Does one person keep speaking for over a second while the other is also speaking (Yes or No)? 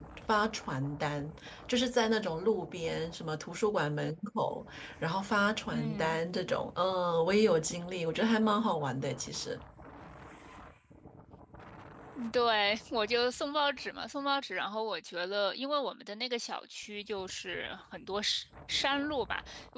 No